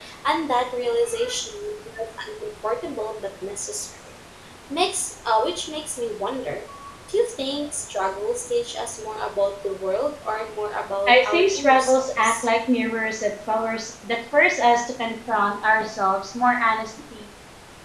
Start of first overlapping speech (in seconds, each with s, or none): 11.1 s